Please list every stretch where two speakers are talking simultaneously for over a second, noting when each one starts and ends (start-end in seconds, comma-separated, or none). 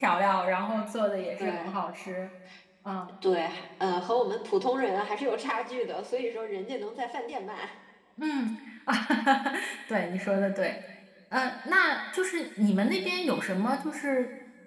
none